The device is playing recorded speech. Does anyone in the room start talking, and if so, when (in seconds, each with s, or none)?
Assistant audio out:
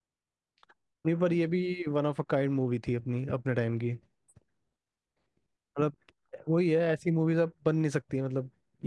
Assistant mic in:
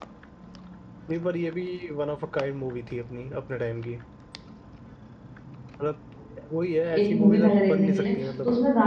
7.0 s